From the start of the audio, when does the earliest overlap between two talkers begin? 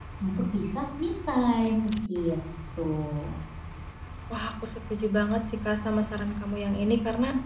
none

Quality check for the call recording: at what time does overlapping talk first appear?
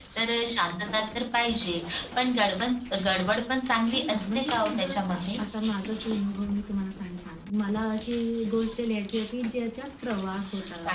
4 s

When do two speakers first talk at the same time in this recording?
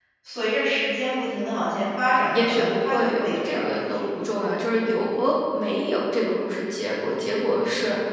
2 s

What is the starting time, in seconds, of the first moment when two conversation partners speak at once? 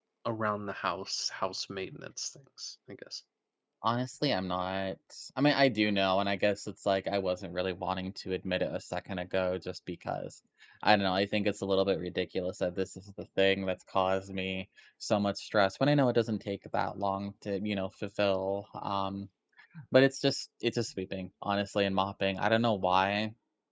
none

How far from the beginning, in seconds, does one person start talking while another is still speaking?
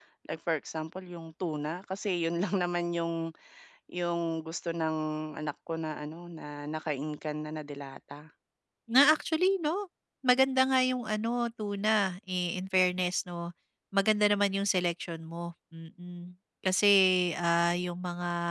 none

